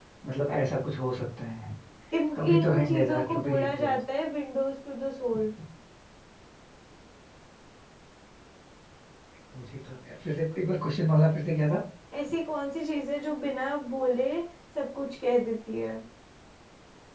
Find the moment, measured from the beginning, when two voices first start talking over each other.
2.4 s

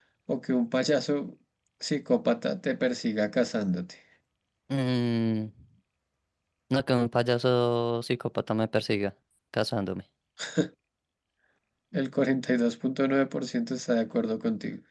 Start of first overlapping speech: none

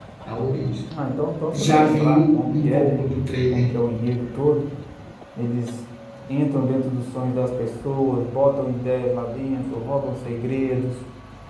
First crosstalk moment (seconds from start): 1.5 s

